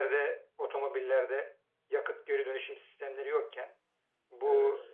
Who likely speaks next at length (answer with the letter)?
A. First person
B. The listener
A